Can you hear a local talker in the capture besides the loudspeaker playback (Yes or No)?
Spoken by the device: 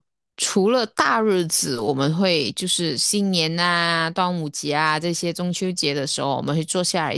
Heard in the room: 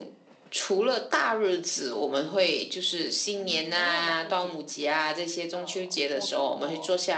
Yes